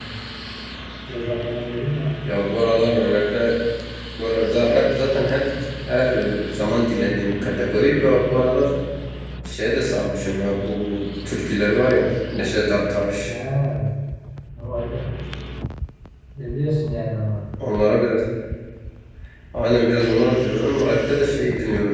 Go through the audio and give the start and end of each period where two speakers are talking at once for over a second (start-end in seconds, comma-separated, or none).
none